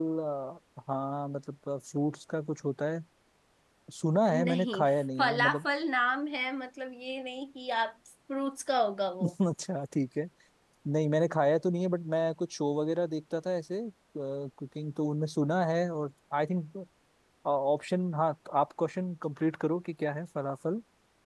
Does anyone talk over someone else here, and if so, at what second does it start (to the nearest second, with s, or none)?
4 s